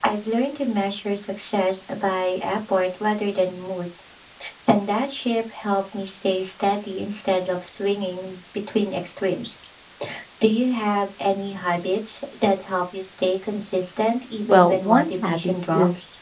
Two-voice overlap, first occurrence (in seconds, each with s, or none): 14.4 s